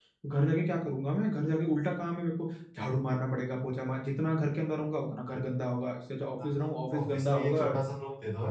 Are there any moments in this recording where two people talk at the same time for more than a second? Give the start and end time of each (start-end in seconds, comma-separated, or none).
6.4-7.7